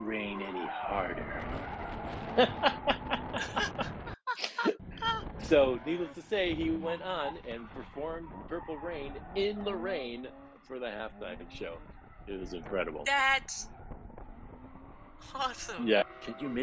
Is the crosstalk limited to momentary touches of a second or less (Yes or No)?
Yes